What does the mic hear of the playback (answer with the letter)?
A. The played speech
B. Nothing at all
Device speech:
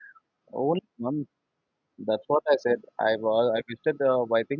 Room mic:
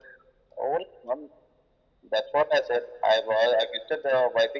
A